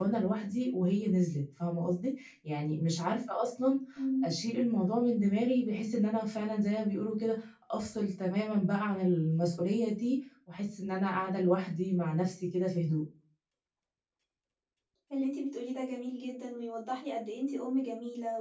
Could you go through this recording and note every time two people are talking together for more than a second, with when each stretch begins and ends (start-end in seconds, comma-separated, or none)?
none